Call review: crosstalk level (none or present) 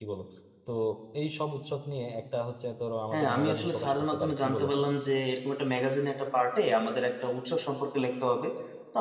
present